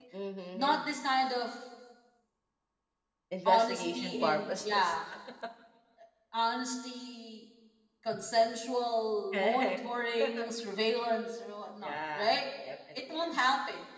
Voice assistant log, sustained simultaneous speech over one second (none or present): present